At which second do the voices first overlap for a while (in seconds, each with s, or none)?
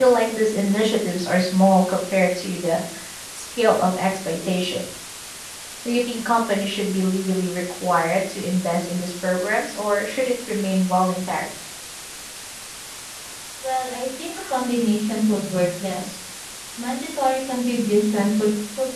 none